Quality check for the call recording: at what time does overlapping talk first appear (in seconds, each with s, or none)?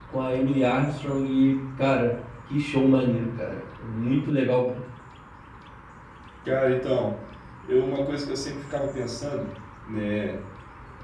none